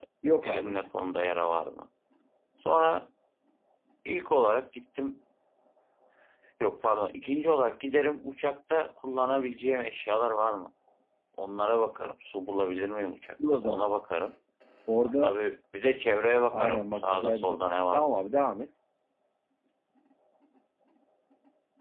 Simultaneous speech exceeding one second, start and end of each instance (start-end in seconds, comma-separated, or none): 16.5-18.1